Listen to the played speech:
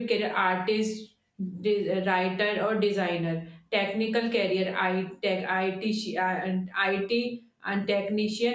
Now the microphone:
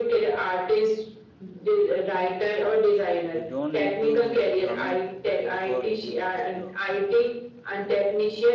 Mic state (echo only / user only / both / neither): both